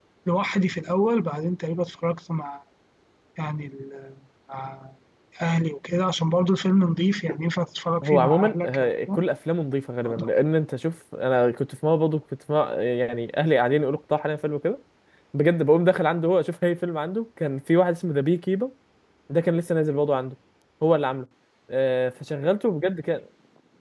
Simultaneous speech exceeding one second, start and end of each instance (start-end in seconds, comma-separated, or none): 8.0-9.2